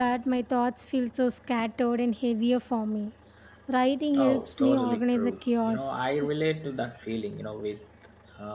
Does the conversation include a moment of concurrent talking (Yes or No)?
Yes